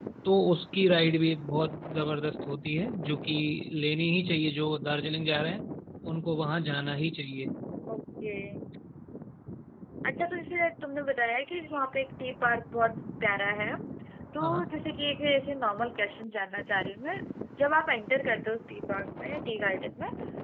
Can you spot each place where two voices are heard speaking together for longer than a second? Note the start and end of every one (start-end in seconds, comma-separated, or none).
none